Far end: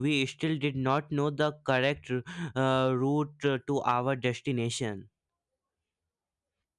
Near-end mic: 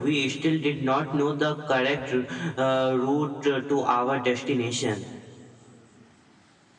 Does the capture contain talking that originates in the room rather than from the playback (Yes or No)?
No